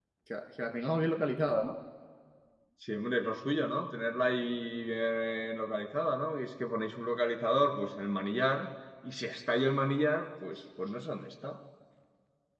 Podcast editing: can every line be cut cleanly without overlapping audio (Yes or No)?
Yes